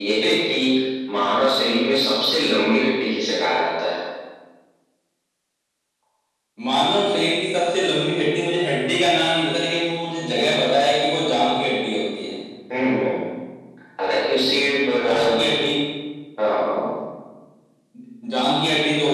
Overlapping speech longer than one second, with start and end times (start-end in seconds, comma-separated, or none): none